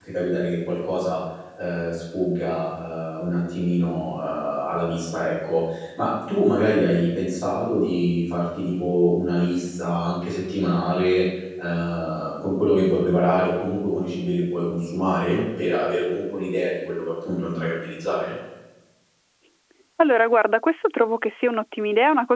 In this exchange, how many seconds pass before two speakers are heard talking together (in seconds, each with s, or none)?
none